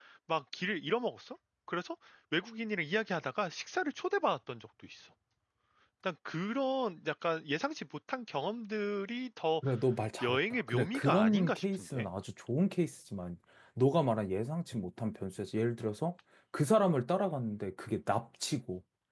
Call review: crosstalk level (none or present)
present